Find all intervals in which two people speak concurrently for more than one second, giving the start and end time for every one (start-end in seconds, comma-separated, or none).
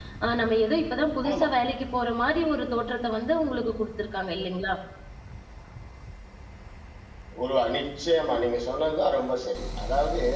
none